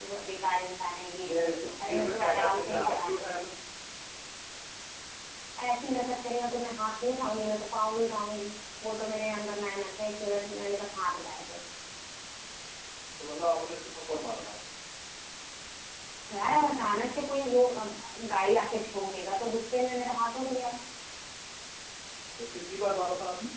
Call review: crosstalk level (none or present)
present